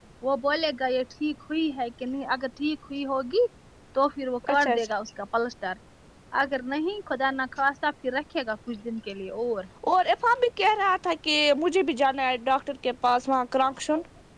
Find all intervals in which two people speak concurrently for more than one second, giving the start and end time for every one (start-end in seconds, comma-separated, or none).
none